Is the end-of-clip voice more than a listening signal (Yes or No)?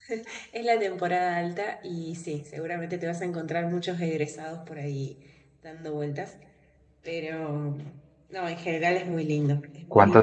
Yes